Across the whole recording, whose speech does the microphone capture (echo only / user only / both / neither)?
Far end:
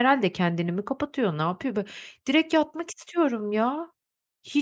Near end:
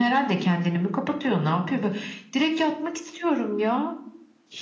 echo only